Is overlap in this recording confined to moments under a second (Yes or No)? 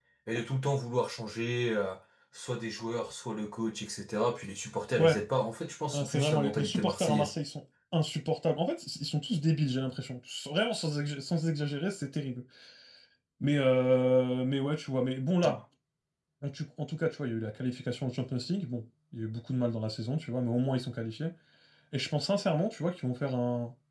No